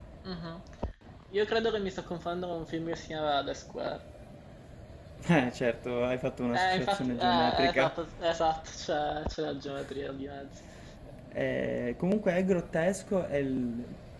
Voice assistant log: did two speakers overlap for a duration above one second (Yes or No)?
Yes